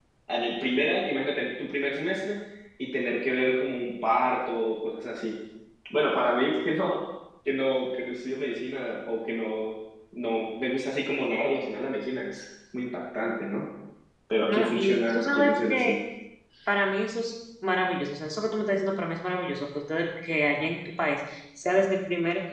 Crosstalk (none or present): present